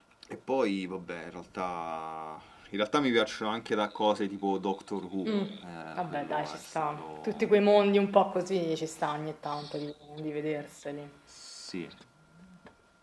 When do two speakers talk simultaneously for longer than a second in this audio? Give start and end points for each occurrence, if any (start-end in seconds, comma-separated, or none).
6.0-7.5